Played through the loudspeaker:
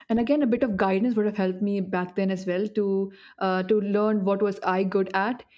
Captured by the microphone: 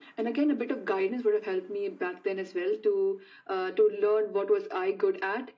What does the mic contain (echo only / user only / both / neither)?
echo only